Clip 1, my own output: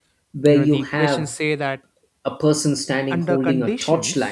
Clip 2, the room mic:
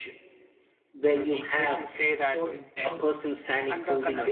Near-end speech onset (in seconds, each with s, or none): 2.2 s